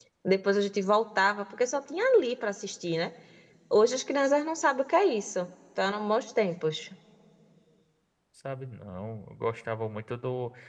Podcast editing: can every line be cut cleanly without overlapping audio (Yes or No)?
Yes